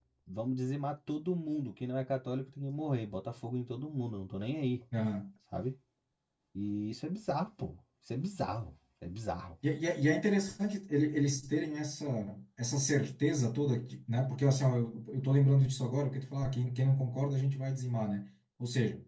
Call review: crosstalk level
none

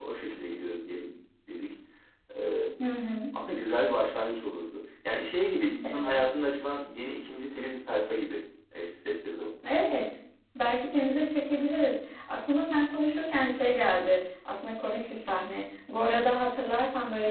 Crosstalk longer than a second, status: none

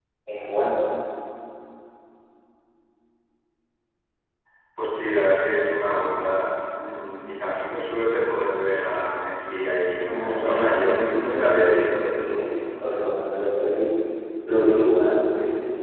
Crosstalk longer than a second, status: present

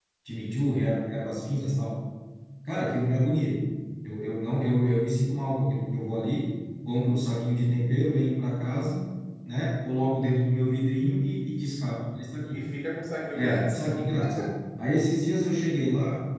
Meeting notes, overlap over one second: none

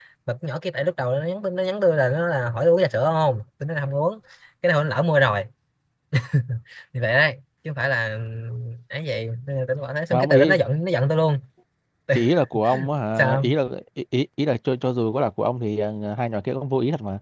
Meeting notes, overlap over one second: none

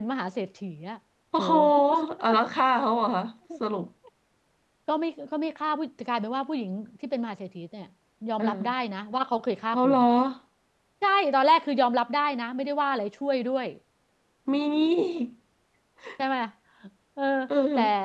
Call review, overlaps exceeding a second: none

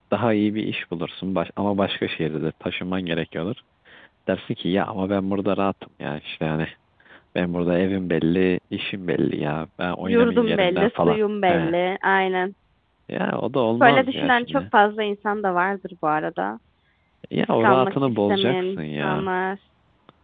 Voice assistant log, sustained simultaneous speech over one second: present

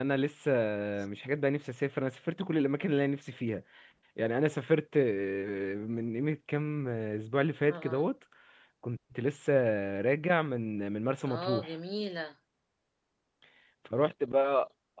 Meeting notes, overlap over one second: none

